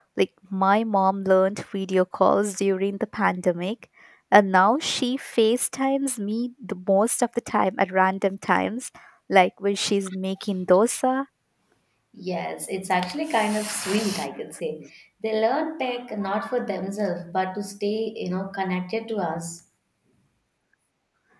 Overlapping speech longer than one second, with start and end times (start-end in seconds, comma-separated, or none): none